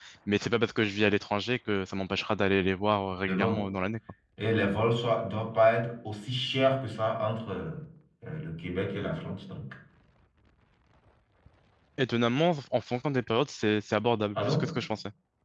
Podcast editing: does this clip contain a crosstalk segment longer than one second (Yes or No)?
No